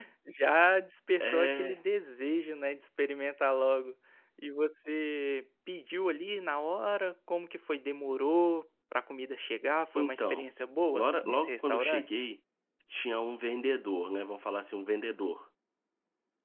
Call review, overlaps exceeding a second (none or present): present